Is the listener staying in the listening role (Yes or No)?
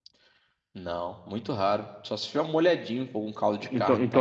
No